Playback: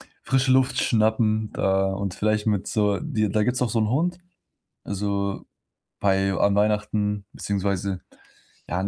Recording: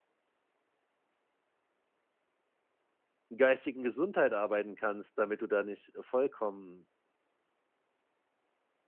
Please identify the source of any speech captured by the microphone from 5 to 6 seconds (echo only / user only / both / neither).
user only